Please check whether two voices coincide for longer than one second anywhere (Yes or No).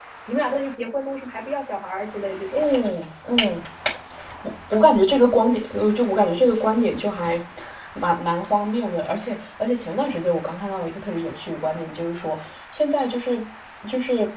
No